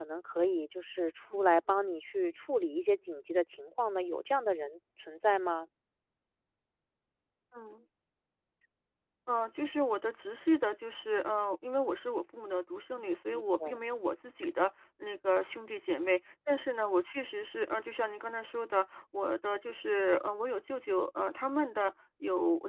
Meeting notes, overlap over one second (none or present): none